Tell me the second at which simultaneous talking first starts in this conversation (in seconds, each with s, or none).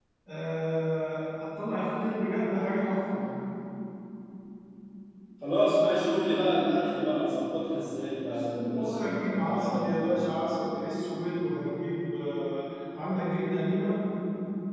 8.3 s